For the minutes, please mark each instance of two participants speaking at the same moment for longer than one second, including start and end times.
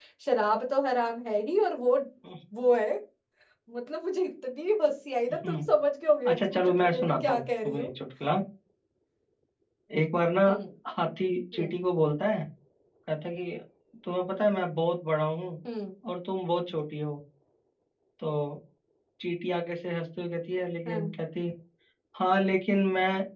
6.3-7.9

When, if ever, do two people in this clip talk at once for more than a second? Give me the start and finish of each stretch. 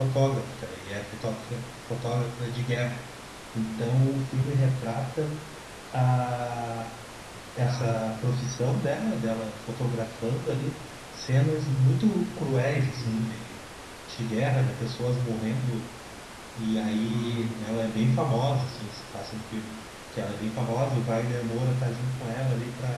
none

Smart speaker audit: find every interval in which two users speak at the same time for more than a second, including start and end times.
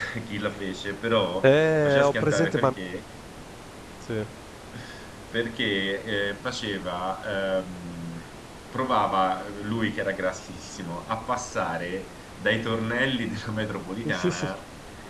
1.4-2.7

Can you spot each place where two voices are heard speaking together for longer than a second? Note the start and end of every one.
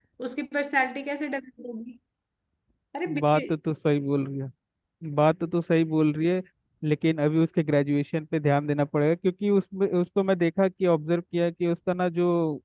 none

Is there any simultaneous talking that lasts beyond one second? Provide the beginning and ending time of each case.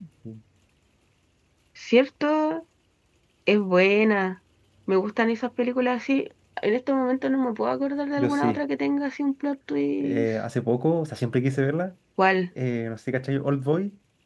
none

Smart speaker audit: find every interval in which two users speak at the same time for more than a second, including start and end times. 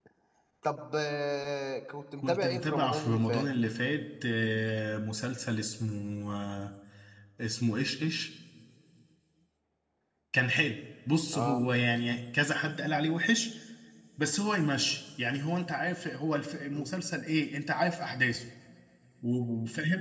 2.2-3.4

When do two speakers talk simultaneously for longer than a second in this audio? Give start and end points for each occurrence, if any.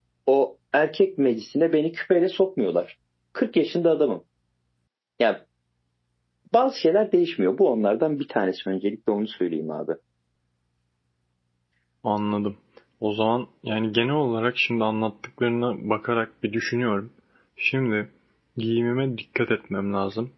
none

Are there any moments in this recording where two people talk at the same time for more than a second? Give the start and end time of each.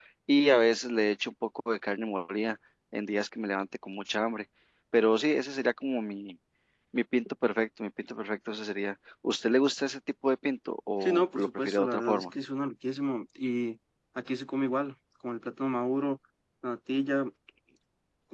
11.0-12.2

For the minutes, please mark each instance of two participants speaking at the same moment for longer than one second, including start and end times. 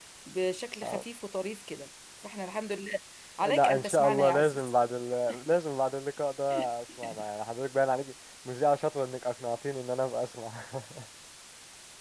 3.5-4.7

